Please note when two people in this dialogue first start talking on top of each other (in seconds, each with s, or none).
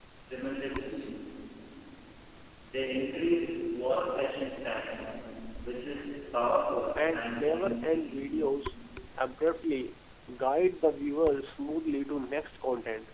7.0 s